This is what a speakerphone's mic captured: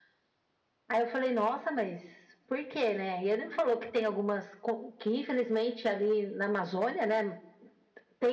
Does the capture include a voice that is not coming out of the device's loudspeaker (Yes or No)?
No